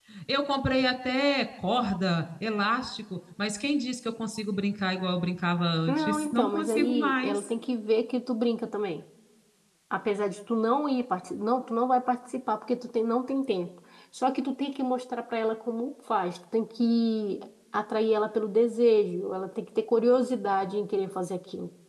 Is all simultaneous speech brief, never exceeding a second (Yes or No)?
No